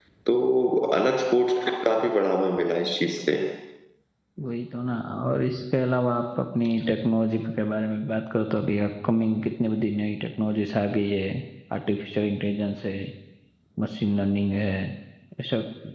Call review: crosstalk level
none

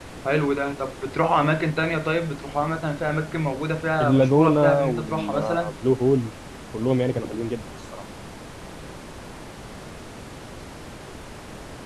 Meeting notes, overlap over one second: present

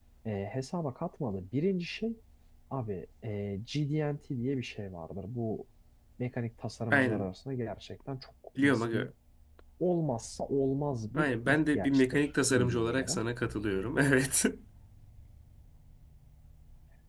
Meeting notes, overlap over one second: present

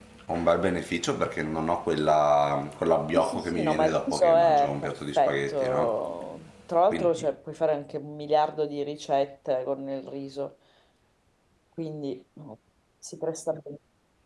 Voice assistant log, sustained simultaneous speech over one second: present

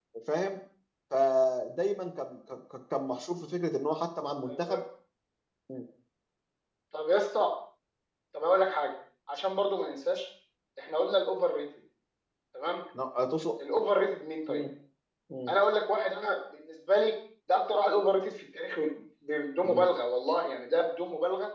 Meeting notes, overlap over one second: none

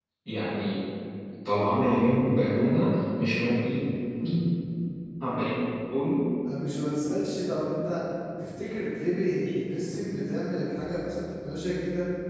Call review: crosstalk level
none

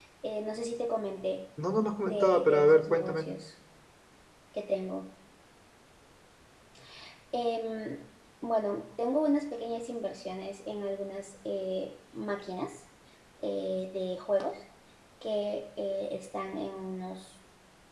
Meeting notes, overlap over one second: present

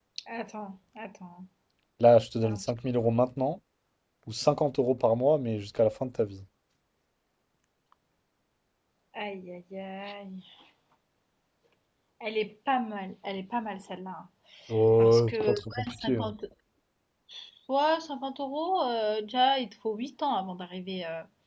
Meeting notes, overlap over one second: present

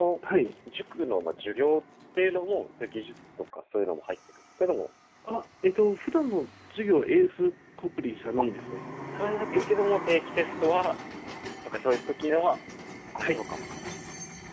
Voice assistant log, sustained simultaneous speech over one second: none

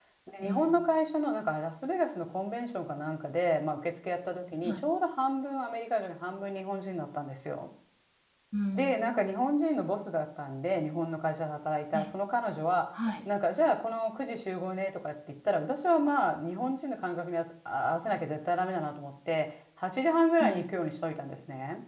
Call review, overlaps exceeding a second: none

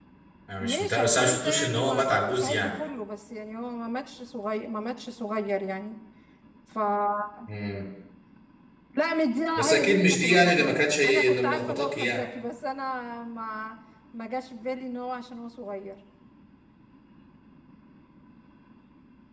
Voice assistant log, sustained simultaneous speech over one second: present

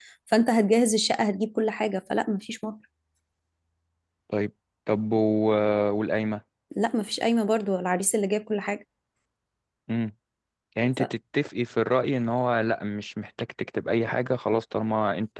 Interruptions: none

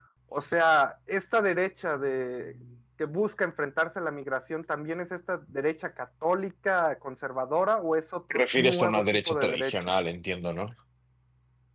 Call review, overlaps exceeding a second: present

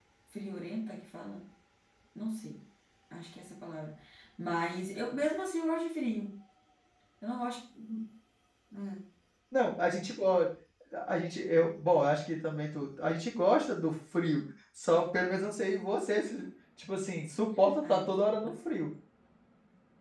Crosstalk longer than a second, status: none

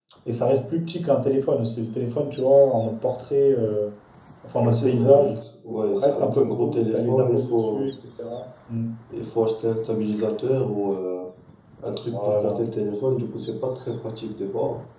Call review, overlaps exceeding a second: present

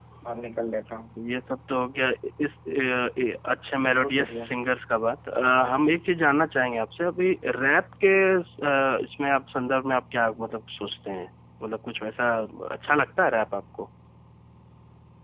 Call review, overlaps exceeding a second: none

